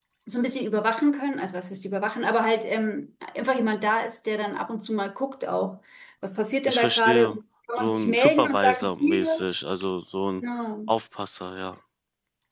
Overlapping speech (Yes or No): Yes